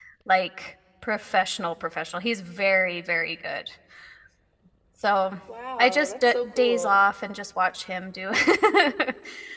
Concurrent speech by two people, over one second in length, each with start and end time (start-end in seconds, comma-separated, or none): 5.8-7.0